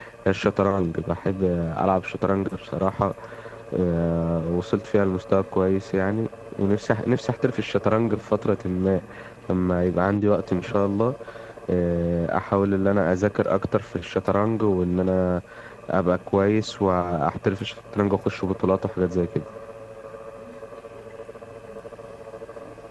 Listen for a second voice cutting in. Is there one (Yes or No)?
No